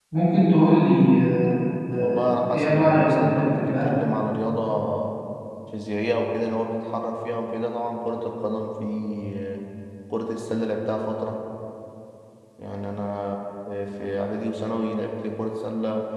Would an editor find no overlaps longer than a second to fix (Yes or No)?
No